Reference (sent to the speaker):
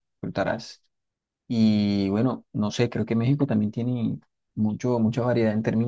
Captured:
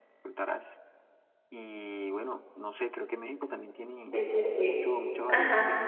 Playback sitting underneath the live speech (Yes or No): Yes